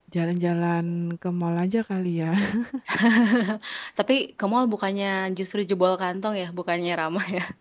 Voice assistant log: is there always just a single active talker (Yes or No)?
Yes